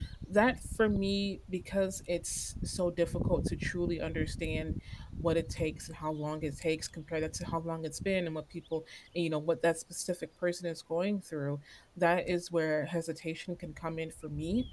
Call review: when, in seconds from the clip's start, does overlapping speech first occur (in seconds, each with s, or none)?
none